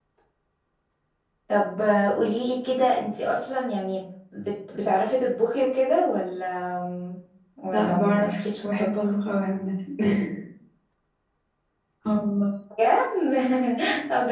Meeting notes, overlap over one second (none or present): present